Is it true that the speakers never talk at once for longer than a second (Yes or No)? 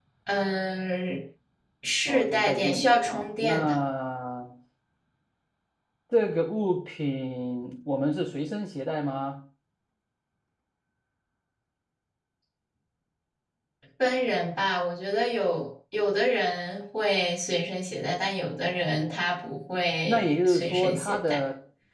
No